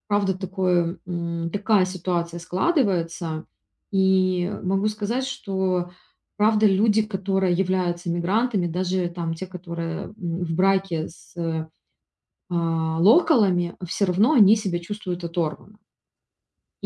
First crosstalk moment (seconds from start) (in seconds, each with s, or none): none